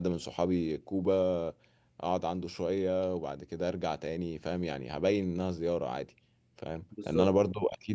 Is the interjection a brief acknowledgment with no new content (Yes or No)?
Yes